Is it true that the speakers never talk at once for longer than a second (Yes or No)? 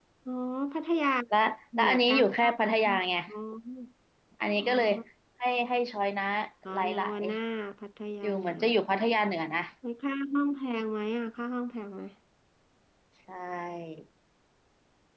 No